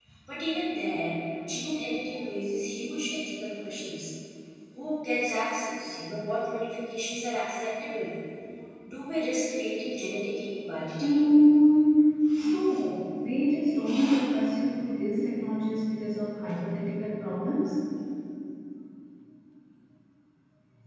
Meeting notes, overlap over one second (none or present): none